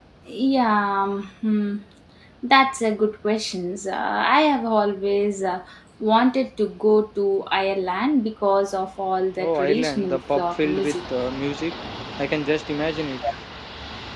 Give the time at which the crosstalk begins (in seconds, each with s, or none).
9.4 s